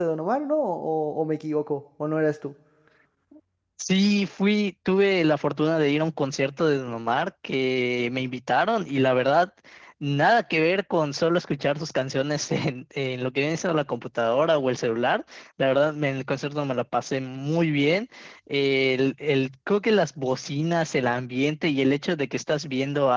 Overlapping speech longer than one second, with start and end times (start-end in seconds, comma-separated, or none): none